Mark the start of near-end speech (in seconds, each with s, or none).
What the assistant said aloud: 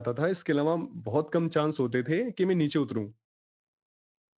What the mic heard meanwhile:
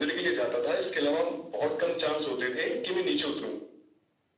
none